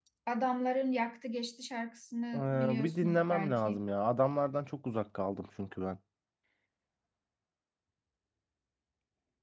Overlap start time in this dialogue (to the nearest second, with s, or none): 2 s